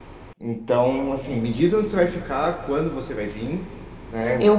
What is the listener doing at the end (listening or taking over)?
listening